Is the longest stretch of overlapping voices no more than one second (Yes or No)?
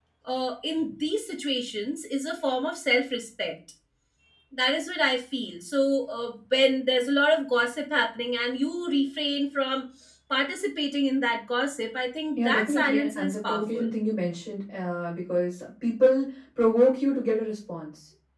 No